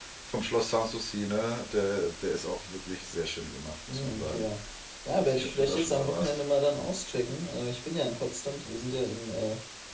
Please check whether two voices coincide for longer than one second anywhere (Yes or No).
Yes